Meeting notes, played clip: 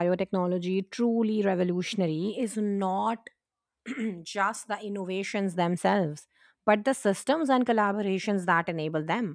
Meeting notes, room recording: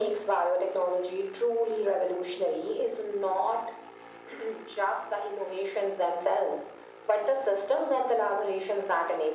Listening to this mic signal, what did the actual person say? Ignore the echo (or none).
none